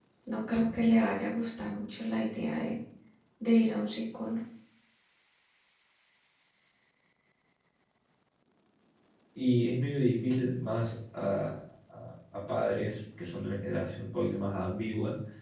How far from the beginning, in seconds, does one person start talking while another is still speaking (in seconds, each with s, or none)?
none